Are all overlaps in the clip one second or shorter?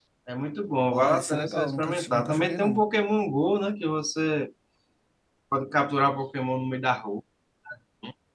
No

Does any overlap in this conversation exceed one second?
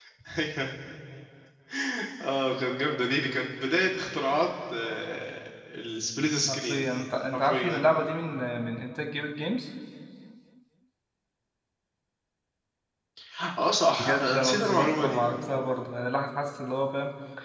Yes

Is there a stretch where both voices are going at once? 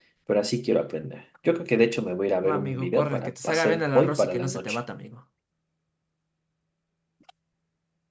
Yes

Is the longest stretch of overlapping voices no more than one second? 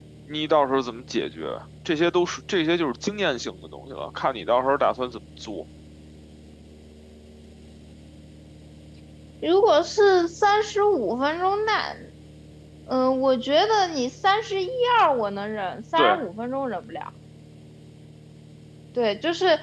Yes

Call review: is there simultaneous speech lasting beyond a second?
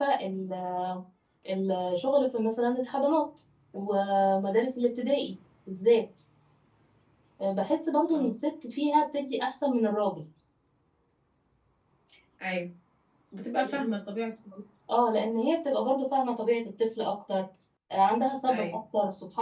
No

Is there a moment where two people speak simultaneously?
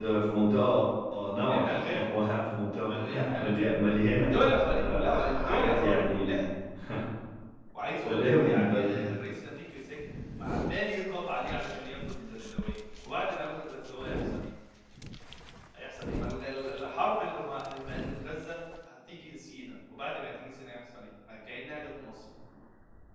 Yes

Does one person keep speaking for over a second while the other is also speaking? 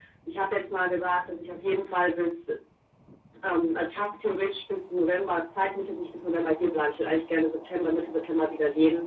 No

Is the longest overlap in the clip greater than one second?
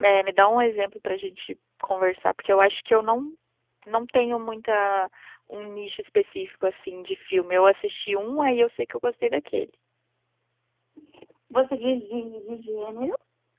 No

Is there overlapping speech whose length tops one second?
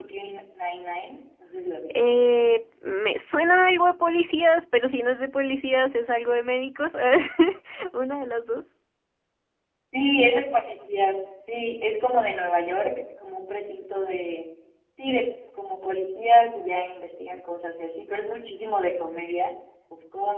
No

